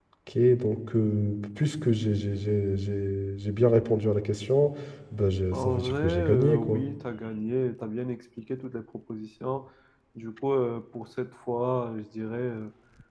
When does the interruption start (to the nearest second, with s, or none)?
6 s